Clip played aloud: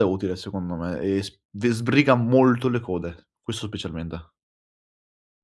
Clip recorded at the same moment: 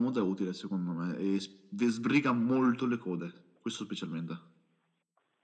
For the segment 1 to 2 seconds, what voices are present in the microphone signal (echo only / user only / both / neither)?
echo only